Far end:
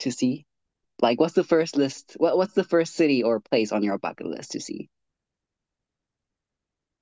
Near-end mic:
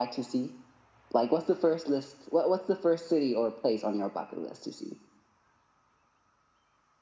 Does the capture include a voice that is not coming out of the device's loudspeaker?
No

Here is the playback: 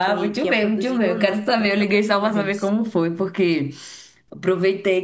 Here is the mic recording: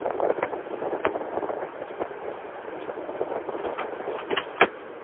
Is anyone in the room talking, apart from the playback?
No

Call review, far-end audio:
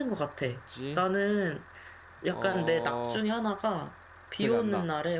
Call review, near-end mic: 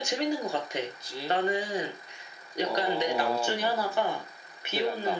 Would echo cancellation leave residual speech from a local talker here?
Yes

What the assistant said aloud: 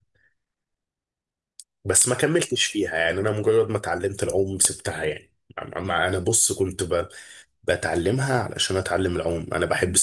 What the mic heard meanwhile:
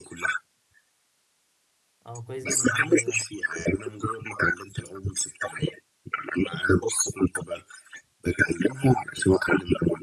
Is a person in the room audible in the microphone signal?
Yes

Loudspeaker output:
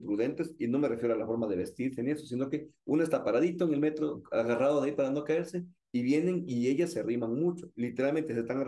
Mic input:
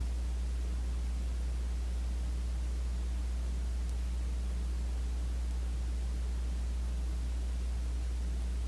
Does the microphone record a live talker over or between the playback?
No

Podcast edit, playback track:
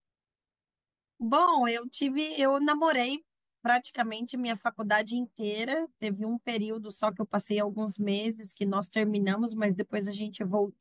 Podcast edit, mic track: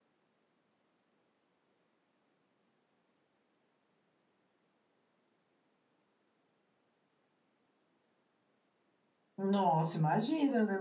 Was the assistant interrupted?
Yes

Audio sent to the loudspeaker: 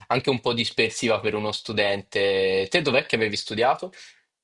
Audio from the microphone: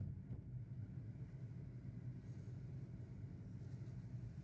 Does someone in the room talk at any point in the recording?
No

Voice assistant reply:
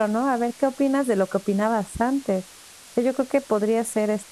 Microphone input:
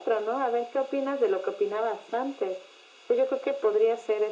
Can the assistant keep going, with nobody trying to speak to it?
Yes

